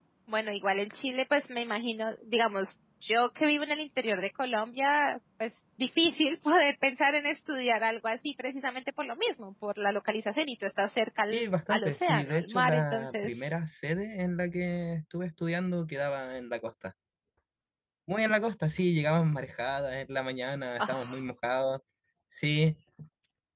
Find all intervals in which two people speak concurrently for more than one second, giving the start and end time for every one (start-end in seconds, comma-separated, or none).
11.3-13.5